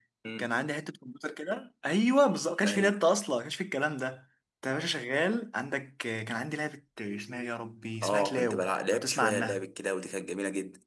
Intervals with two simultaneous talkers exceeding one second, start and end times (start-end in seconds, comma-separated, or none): 8.0-9.7